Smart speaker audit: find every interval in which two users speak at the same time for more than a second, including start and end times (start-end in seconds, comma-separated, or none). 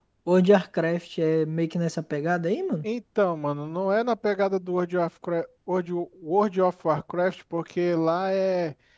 none